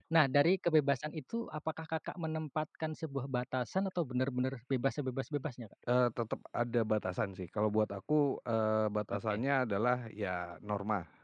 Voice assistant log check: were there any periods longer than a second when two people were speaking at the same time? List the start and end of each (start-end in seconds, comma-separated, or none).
none